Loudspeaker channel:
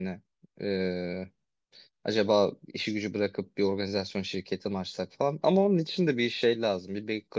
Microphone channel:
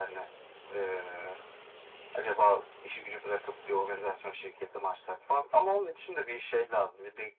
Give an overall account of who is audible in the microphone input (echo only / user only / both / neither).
echo only